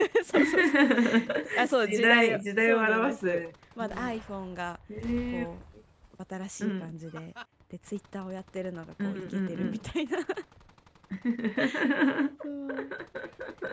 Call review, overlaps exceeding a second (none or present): present